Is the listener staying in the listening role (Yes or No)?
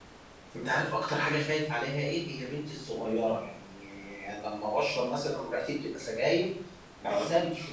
Yes